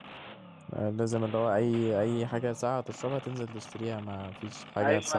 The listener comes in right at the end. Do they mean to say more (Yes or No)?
Yes